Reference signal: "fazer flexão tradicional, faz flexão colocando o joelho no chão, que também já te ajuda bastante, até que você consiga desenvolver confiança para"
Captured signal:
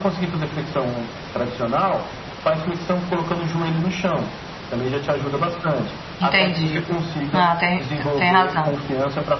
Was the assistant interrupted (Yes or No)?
Yes